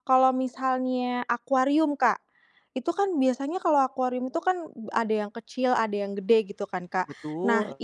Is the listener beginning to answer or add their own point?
No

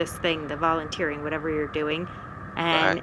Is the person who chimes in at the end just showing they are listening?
Yes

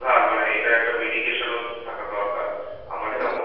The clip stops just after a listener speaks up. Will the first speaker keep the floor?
No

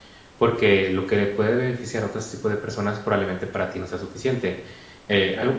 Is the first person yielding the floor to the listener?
No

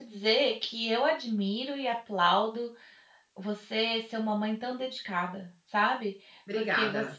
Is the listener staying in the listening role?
Yes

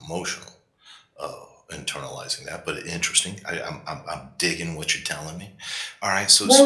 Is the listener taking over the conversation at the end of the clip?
Yes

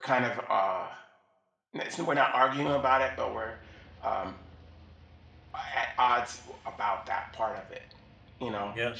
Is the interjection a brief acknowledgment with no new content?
Yes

